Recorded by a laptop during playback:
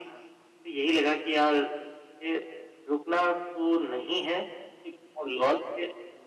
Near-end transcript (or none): none